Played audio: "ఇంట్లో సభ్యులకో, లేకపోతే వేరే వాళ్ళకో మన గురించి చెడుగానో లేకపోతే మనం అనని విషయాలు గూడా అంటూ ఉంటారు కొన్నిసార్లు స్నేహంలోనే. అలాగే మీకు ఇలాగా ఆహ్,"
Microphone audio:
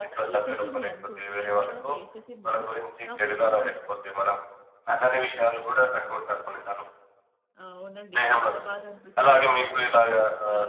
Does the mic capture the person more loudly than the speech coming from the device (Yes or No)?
No